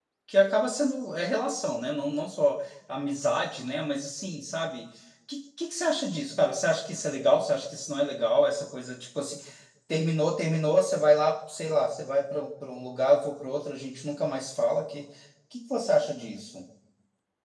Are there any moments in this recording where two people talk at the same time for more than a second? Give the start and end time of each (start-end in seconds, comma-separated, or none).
none